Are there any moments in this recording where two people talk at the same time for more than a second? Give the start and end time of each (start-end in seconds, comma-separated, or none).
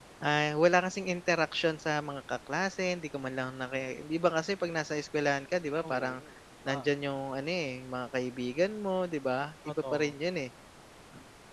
none